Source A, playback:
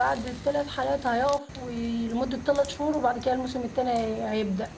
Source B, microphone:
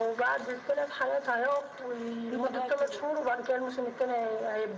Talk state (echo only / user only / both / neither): both